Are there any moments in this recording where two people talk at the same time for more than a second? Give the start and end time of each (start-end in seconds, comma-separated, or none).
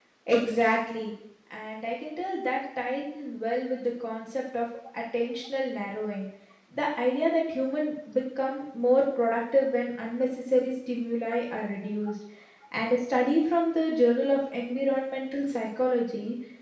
none